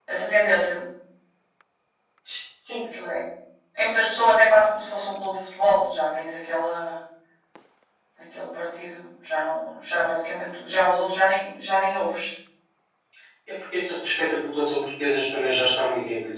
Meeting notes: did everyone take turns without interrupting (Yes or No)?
Yes